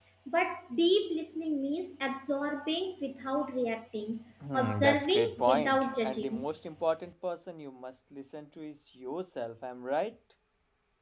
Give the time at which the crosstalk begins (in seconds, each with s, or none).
4.4 s